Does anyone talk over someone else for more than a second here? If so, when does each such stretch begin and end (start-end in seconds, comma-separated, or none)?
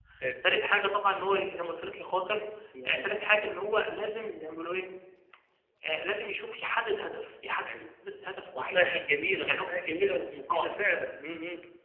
none